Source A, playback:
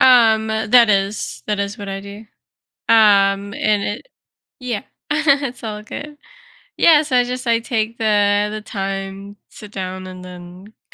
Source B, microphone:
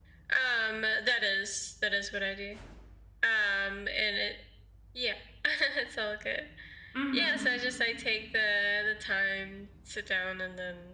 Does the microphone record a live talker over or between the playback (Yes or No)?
Yes